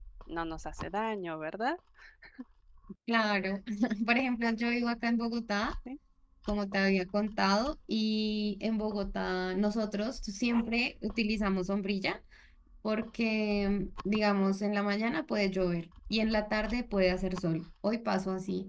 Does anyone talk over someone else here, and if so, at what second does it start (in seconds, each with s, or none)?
none